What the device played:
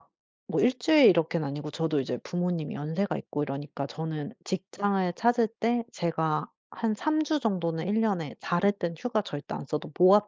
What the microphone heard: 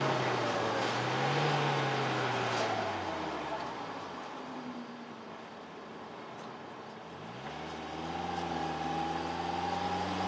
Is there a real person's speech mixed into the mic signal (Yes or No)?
No